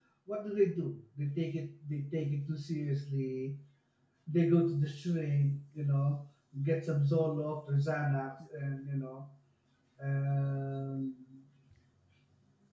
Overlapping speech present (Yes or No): No